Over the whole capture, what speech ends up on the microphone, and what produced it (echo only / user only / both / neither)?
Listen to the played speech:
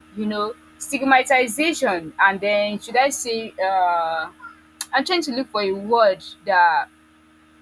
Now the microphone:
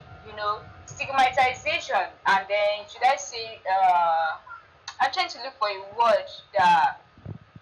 echo only